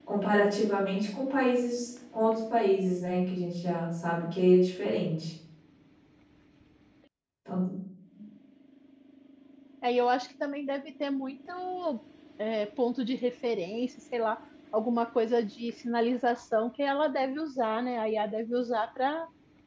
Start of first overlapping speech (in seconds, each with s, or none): none